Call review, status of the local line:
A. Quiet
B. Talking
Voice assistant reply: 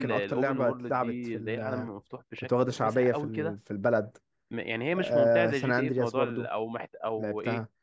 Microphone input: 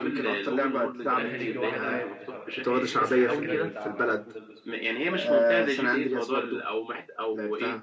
B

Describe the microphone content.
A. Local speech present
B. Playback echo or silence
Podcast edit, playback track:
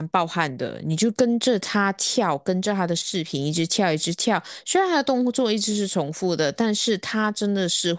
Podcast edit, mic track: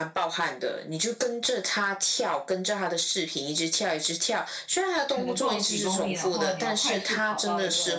A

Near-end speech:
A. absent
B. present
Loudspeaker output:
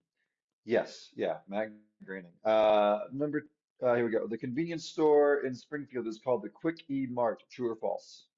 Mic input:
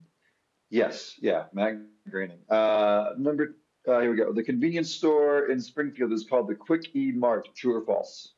A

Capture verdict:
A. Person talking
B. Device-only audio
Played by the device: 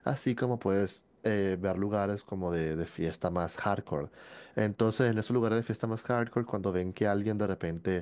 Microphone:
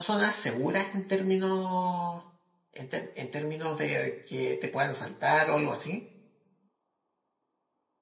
A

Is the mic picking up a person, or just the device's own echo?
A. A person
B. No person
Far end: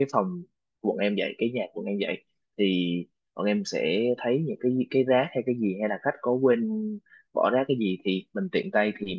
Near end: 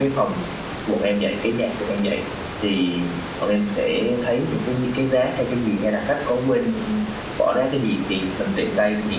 B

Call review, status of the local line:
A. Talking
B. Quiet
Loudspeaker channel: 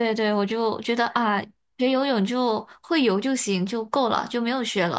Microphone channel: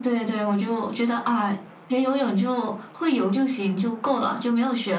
B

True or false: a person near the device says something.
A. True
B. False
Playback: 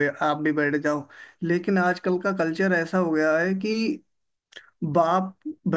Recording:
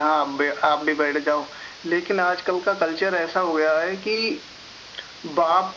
B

